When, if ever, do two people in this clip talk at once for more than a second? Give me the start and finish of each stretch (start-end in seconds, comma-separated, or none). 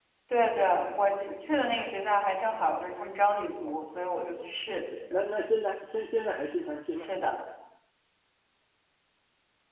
none